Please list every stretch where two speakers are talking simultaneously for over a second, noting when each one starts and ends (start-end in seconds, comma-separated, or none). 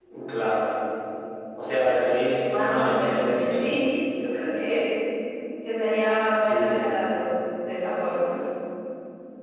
2.4-3.6